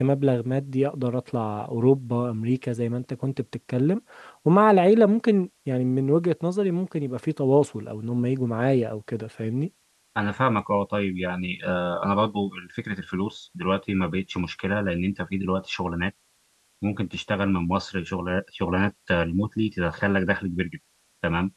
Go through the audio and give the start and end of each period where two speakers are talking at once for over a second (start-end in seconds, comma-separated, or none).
none